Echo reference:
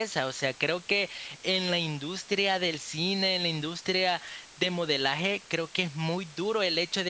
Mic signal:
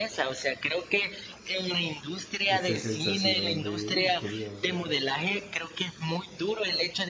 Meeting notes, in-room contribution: present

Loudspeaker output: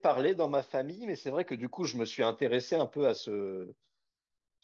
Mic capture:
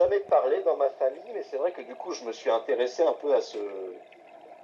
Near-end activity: none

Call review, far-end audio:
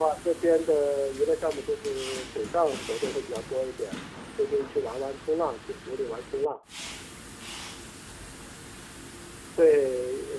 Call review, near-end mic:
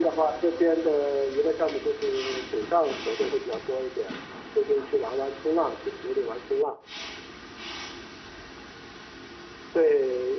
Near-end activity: none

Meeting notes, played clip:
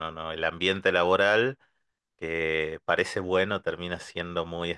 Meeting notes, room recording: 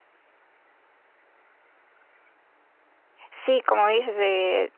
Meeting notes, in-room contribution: present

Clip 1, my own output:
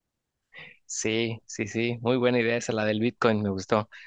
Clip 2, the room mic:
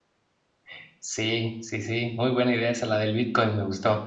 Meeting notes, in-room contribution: none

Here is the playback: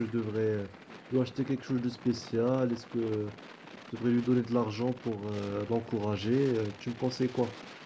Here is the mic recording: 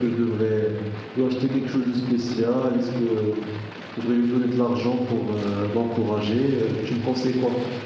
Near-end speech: none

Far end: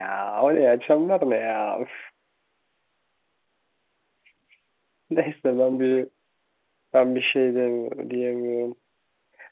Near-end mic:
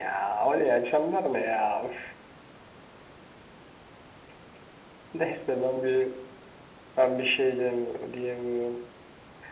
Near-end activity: none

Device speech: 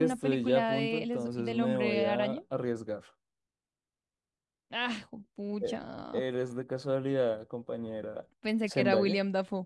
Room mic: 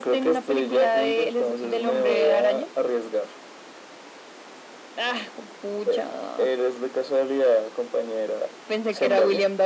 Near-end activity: none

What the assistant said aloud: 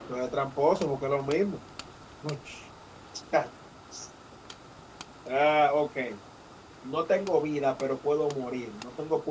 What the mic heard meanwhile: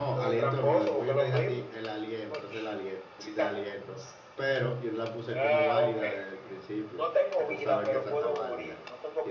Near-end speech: present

